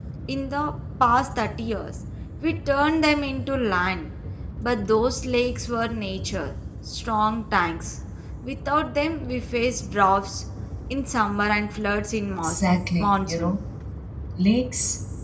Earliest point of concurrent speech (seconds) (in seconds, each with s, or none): 12.4 s